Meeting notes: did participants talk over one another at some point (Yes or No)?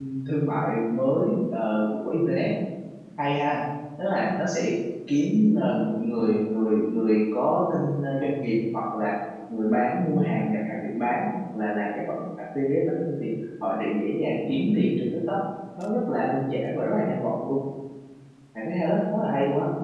No